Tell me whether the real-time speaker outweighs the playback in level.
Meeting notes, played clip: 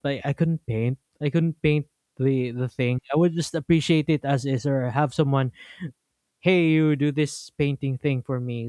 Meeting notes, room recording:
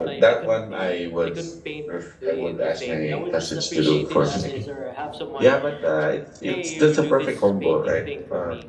Yes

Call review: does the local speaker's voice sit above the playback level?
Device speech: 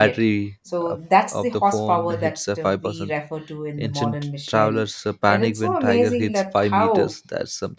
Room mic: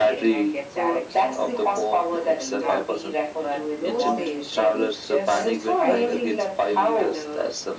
No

